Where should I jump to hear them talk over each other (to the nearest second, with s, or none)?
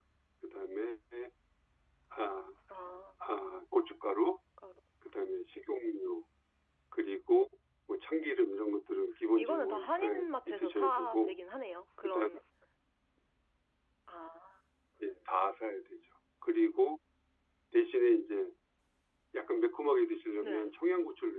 9 s